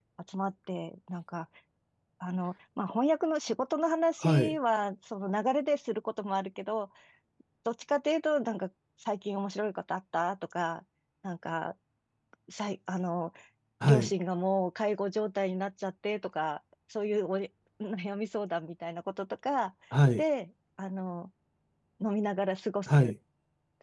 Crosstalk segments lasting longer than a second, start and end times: none

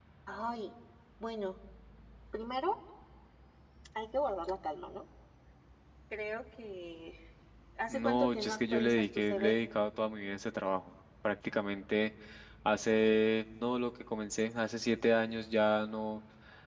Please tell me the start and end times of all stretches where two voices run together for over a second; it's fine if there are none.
7.9-9.6

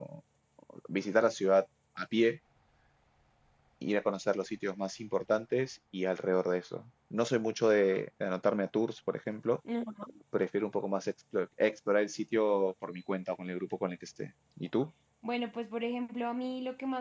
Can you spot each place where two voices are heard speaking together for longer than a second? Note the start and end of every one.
none

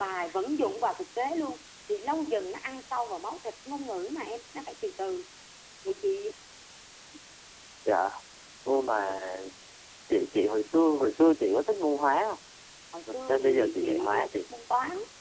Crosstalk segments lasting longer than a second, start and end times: 13.1-14.4

